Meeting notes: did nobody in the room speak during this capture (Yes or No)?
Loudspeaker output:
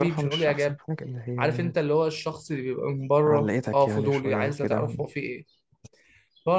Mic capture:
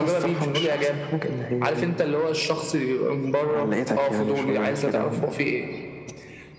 Yes